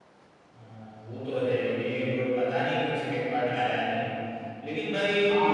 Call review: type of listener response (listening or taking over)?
taking over